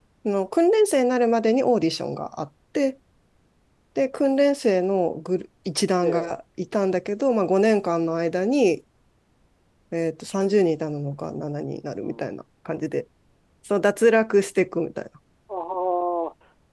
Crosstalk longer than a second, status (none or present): none